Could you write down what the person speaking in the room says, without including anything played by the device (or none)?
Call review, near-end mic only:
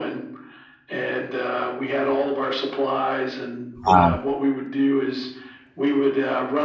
wow.